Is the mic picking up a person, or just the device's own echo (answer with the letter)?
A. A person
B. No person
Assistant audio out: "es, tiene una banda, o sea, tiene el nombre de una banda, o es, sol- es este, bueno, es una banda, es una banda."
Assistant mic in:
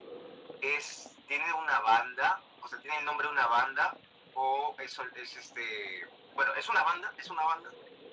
B